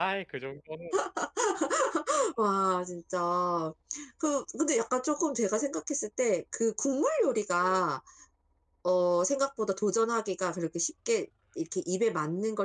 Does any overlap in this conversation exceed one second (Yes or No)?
No